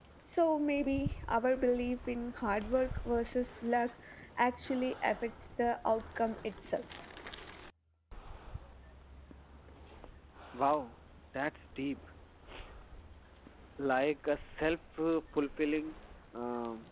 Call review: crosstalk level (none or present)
none